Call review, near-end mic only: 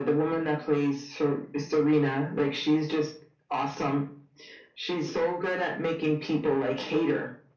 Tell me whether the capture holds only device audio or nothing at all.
Yes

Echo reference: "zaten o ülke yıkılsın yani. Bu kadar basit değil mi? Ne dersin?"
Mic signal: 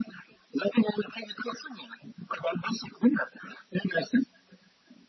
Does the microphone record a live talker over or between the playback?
No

